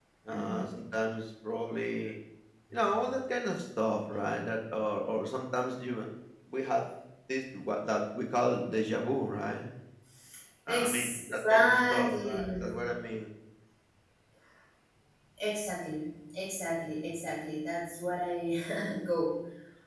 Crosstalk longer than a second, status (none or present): present